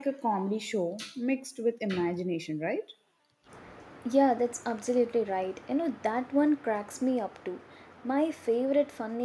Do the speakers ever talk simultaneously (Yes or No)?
No